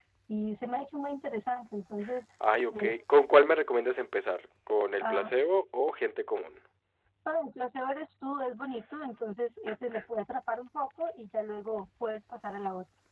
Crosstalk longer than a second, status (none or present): none